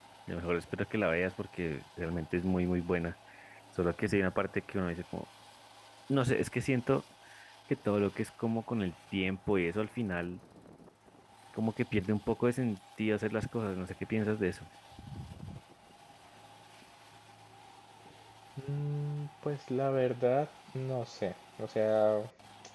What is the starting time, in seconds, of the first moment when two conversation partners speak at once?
none

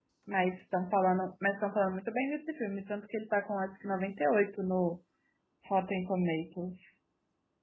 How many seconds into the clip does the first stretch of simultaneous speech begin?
none

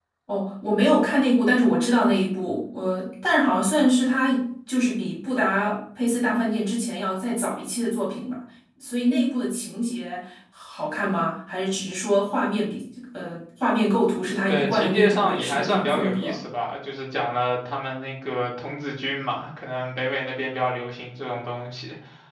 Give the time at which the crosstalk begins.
14.5 s

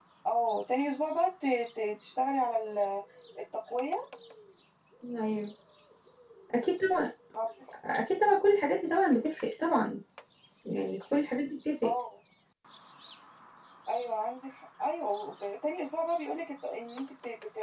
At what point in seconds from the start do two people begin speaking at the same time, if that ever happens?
none

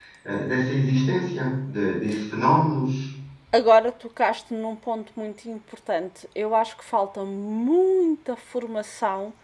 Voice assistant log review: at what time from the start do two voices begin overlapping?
none

